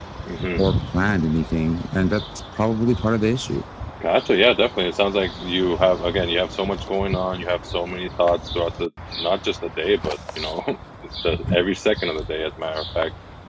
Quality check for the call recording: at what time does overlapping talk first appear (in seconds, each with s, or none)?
none